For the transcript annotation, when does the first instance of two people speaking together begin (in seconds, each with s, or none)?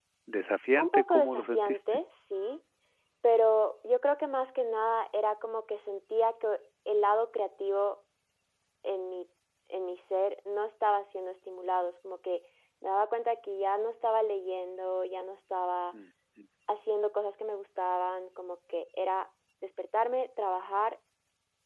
0.7 s